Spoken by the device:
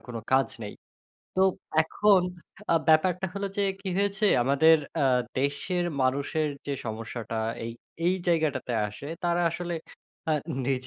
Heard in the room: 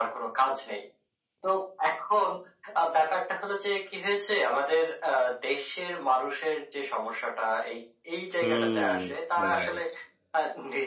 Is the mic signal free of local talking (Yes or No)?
No